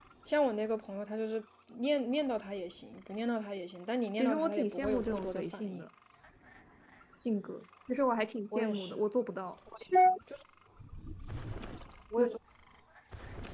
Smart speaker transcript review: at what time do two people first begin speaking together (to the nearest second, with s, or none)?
4 s